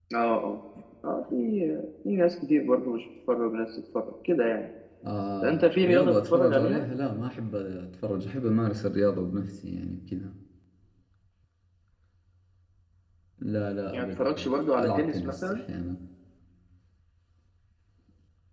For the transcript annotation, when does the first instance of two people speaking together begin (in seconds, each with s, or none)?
5.4 s